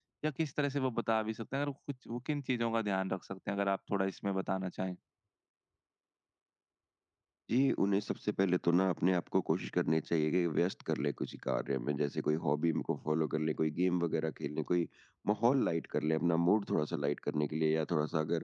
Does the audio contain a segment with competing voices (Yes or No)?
No